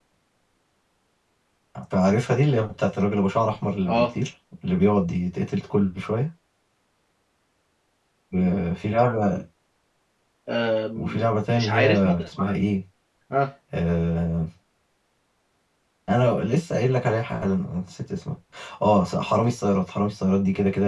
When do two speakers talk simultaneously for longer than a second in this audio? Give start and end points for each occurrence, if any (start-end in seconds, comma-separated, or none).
11.0-12.5